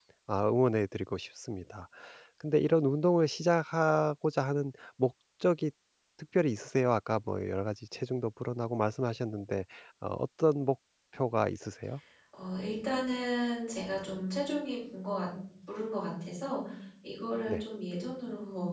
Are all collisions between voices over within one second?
Yes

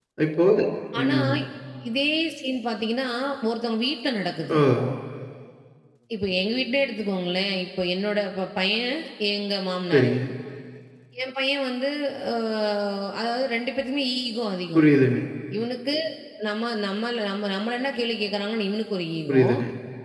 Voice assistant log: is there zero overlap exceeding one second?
Yes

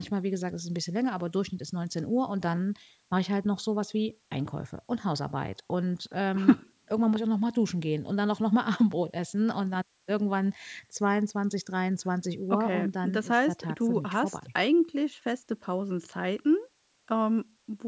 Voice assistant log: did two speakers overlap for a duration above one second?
Yes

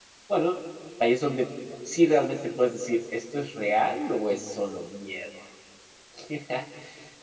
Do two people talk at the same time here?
No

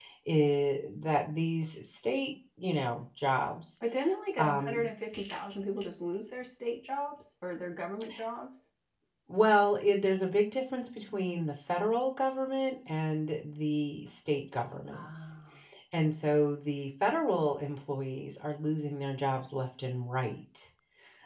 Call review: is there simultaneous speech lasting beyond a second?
No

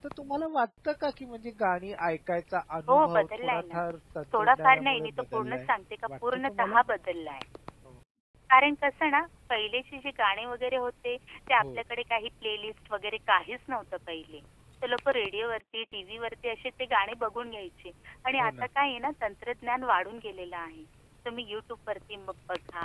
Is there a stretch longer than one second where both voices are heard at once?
Yes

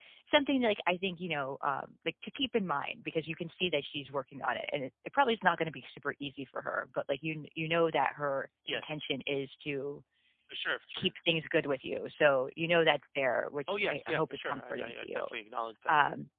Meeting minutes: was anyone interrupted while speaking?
Yes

